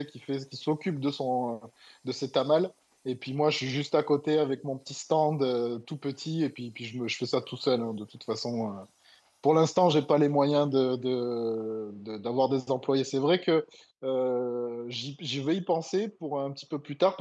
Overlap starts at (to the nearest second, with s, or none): none